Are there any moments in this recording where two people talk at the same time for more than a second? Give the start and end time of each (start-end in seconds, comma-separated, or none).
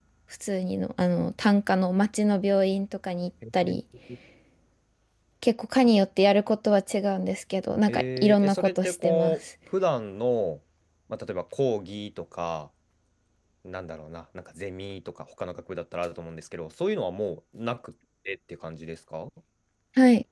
7.9-9.4